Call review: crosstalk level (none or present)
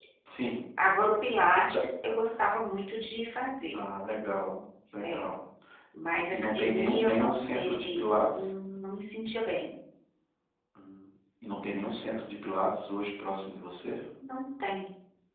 present